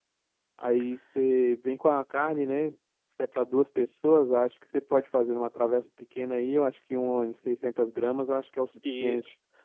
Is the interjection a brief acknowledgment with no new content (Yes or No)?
No